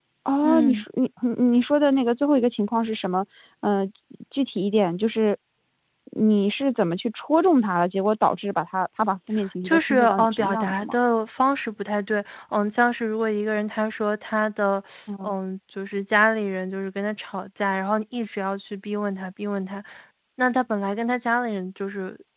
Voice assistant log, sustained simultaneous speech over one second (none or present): present